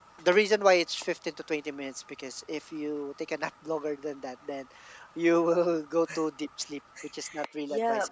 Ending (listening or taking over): taking over